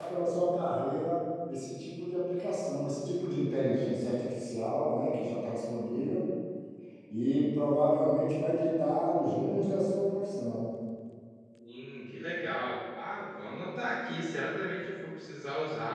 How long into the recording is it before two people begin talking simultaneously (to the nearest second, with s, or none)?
none